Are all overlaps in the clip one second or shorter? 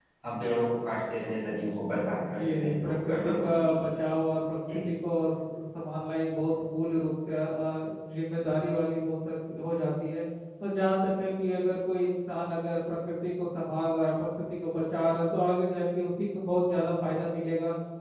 No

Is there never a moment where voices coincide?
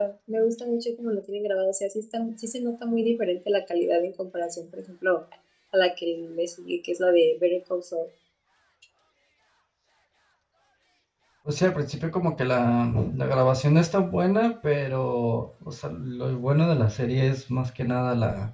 Yes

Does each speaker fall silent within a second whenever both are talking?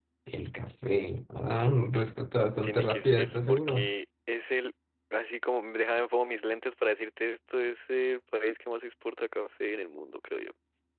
No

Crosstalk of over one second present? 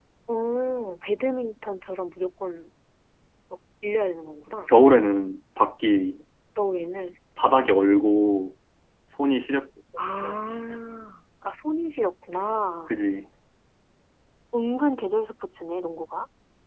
No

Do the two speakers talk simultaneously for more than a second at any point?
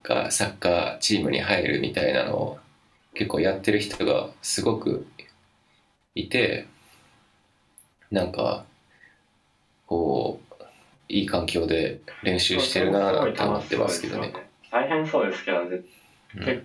Yes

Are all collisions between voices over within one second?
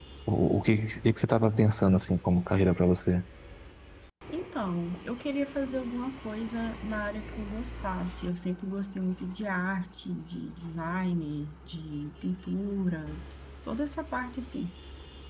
Yes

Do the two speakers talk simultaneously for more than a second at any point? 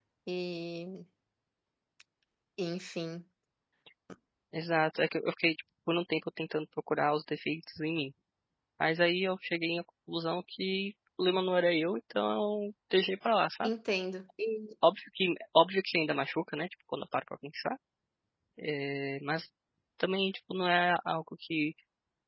No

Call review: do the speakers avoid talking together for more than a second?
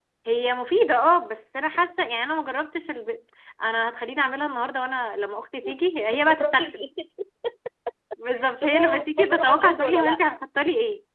No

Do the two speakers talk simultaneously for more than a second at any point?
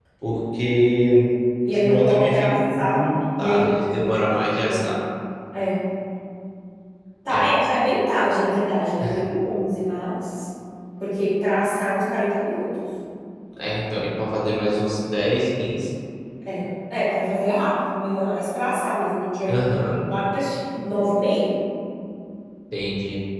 Yes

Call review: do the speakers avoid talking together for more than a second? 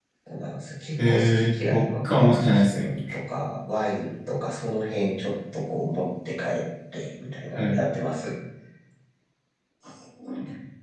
No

